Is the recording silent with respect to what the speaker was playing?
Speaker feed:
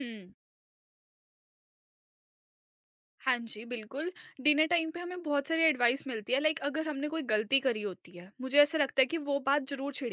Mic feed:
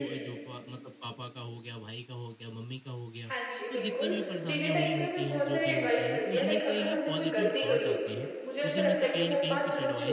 No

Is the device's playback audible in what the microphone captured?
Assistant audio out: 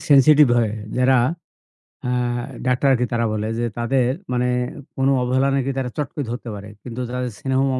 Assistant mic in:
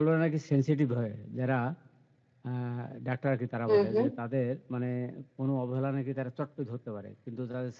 Yes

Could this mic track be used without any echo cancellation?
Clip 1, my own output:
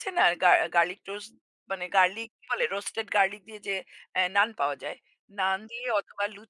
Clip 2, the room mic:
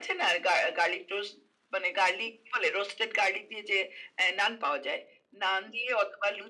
No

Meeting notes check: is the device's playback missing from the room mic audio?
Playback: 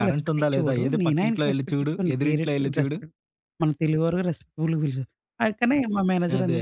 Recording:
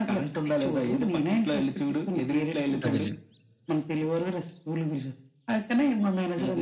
No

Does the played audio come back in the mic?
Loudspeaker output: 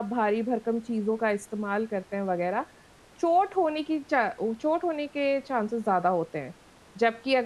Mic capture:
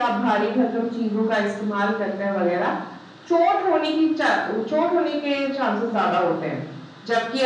Yes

